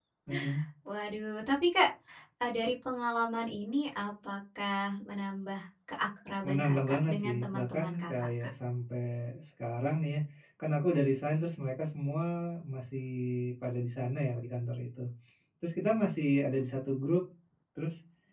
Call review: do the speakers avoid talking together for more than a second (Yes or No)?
No